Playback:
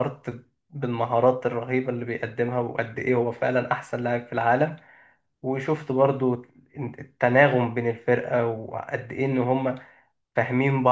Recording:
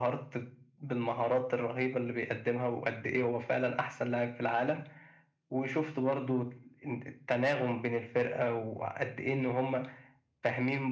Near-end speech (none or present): none